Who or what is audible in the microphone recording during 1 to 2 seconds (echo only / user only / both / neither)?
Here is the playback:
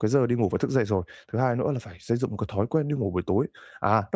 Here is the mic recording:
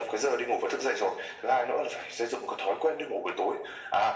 echo only